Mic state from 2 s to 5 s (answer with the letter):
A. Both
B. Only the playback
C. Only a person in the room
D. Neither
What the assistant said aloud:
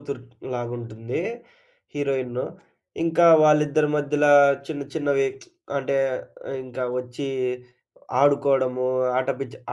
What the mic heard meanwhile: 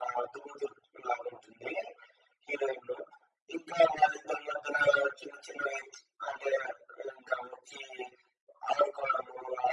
B